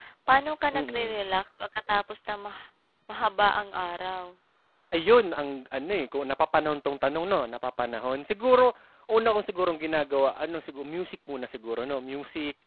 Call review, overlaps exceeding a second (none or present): none